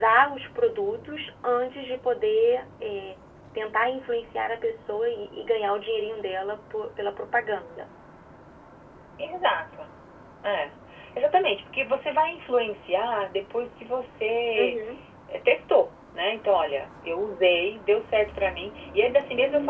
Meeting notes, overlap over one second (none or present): none